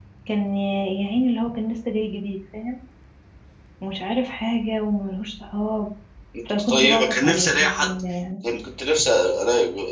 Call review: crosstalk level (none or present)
present